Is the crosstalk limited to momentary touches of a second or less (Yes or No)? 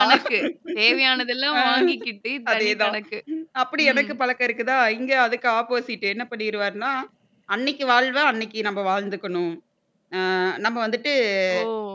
Yes